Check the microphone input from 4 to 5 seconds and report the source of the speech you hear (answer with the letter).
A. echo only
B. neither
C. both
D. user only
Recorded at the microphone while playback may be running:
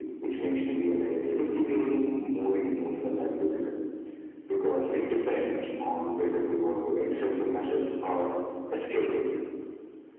A